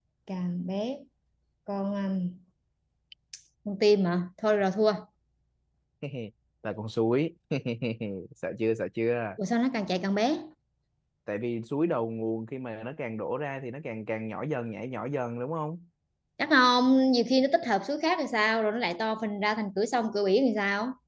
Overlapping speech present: No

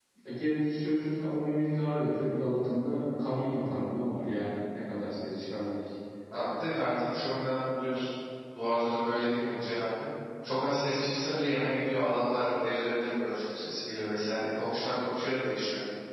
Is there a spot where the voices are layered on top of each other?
No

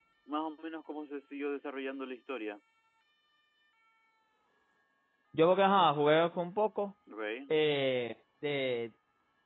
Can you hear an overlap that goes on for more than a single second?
No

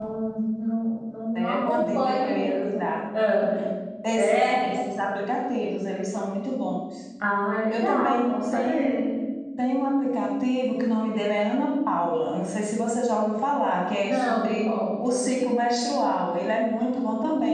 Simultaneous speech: Yes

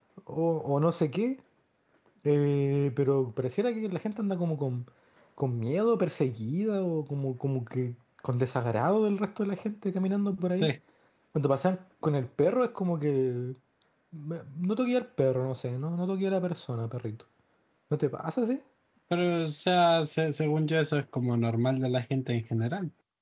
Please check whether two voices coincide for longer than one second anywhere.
No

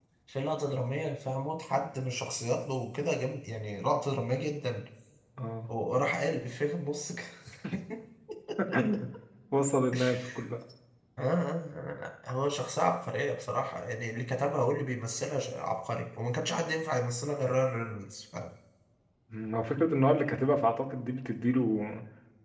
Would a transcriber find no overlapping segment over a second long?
Yes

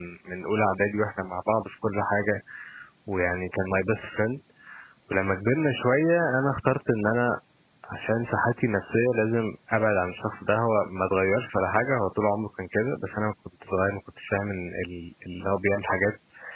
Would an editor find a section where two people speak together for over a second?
No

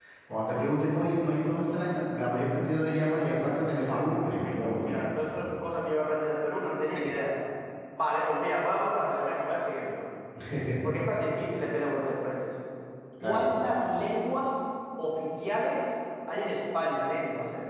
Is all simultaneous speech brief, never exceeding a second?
No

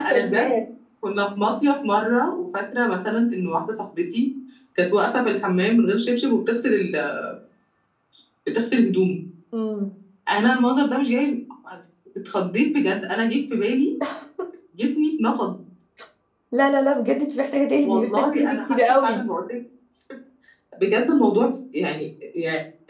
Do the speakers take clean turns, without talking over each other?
No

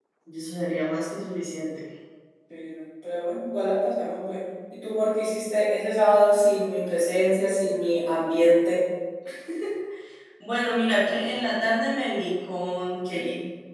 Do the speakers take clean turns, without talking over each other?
Yes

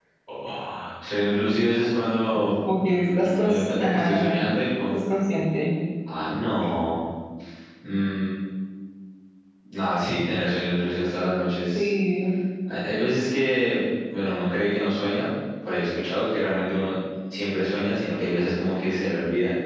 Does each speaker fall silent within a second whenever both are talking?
No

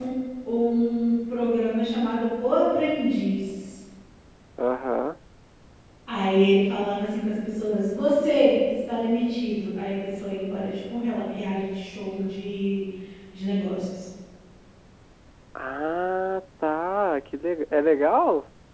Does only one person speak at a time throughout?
Yes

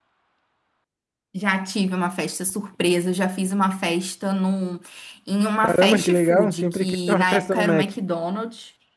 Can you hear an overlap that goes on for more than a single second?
Yes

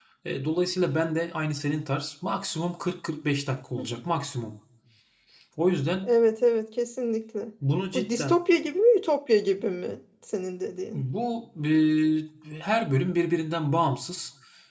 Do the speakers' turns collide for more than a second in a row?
No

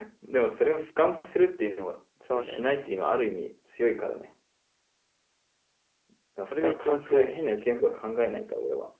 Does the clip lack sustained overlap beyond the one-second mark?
No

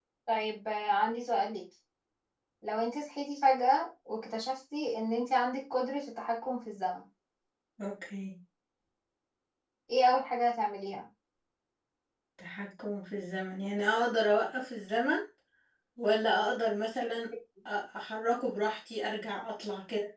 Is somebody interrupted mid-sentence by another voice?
No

